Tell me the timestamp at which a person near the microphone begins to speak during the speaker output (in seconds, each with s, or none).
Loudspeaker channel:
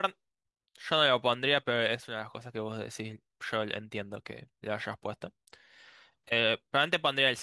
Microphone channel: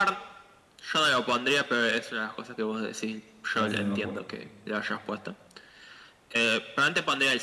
3.5 s